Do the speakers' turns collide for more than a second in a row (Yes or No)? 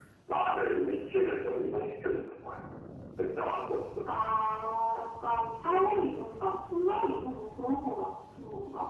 No